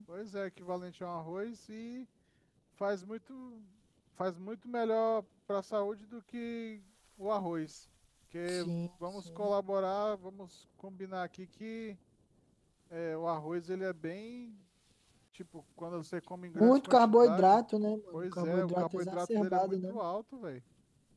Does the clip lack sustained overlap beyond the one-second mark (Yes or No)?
No